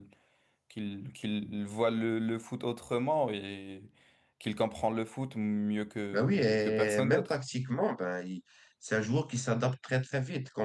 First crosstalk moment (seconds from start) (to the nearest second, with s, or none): 6 s